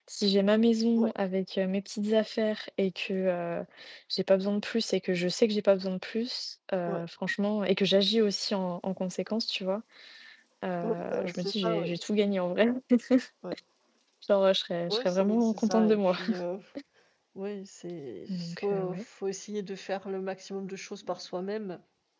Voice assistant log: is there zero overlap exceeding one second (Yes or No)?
No